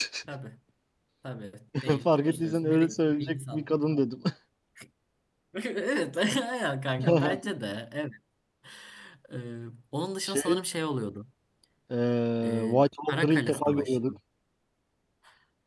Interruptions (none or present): present